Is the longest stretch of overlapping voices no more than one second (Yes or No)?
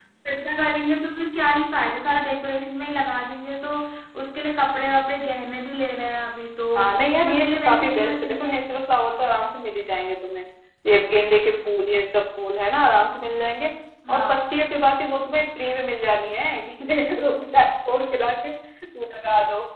No